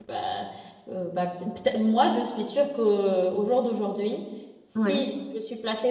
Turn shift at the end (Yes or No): No